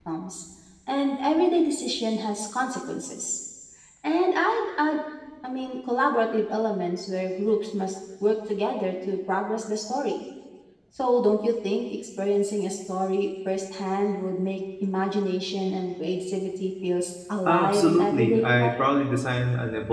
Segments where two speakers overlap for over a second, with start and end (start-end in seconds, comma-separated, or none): 17.5-18.8